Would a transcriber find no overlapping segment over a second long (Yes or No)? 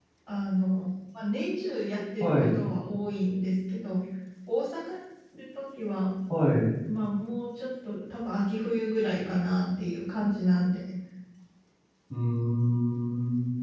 Yes